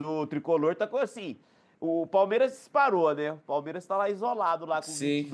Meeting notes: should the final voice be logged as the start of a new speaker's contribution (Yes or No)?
Yes